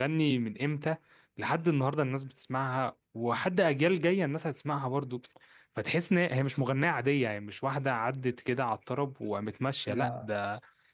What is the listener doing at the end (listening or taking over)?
listening